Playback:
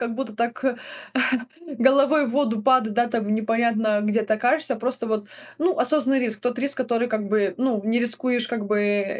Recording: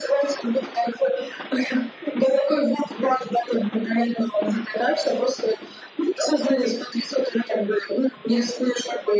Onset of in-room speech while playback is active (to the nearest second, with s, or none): none